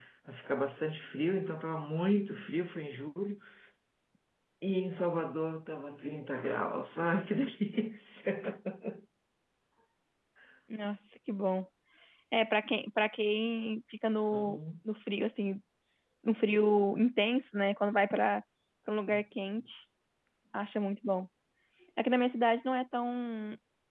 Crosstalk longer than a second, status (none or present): none